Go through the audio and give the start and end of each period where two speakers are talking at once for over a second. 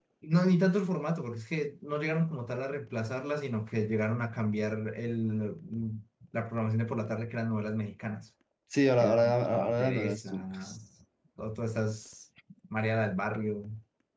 9.0-10.8

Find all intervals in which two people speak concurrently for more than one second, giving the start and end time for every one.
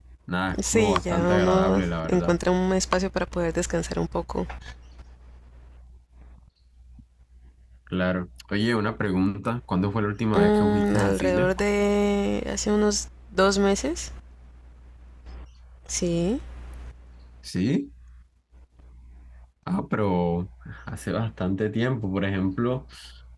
0.7-2.4, 10.3-11.5

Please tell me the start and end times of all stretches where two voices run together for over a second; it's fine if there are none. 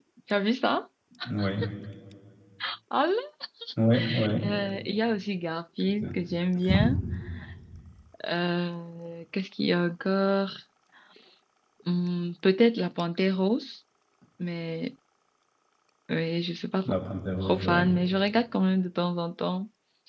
none

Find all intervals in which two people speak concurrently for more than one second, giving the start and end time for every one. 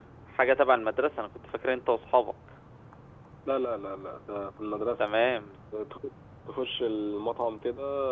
none

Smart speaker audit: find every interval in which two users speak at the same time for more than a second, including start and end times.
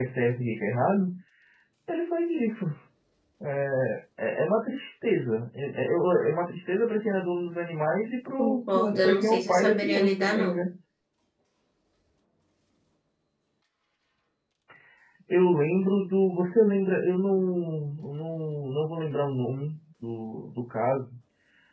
8.4-10.6

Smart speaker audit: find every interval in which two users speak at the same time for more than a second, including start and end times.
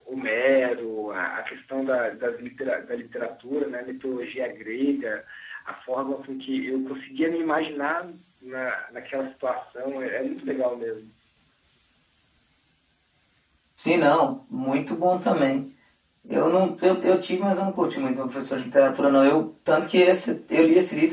none

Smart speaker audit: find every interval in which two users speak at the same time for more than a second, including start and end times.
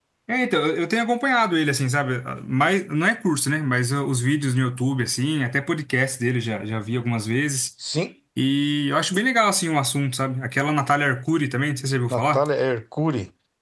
none

